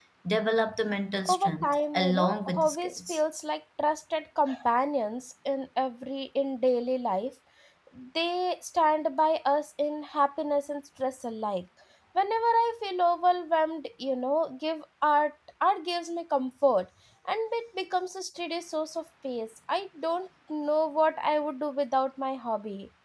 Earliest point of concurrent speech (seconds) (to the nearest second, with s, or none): 1 s